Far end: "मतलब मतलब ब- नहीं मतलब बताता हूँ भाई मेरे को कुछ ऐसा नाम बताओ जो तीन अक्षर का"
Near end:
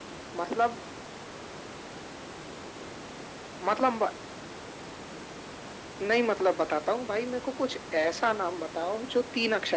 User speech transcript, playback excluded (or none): none